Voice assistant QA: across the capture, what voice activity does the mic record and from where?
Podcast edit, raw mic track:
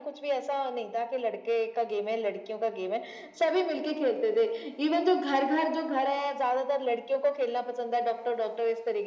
echo only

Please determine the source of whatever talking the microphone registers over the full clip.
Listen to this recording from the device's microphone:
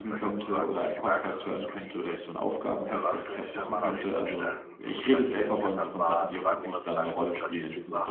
both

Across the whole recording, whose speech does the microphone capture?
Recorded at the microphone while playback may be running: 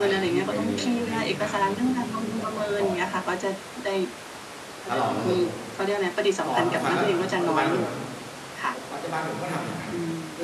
both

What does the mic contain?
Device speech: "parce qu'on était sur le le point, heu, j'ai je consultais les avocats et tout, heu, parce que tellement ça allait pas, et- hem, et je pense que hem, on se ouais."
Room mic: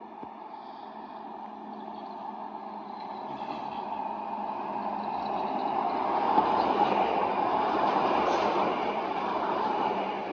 neither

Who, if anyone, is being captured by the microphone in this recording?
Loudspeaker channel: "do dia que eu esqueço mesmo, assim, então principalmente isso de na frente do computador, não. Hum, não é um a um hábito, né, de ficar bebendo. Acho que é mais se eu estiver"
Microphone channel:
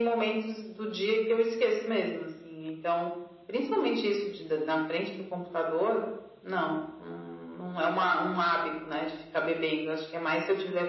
echo only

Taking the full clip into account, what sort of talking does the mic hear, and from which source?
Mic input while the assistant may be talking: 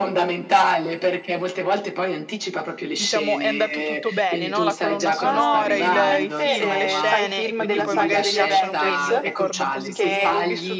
both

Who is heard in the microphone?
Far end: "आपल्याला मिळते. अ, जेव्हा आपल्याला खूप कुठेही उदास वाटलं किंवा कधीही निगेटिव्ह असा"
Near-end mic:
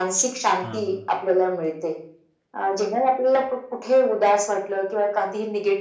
both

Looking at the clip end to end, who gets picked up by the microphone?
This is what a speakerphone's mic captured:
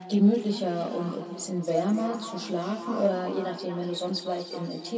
echo only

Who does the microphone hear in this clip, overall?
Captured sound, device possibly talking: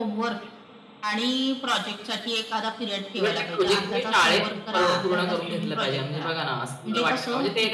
both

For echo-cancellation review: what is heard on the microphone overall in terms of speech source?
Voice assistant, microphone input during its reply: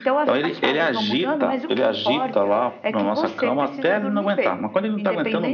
echo only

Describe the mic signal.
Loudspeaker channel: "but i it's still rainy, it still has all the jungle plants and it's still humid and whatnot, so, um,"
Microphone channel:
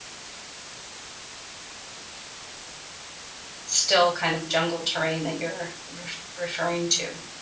user only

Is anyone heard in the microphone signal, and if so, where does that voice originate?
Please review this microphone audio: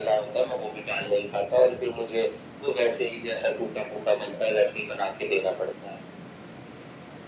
echo only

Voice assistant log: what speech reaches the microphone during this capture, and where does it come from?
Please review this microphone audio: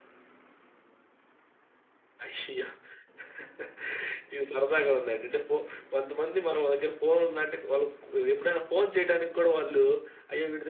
user only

